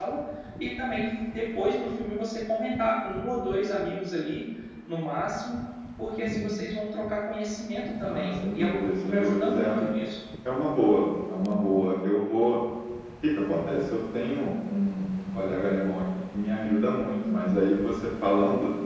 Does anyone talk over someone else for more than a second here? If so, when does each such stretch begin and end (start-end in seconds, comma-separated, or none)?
8.0-9.7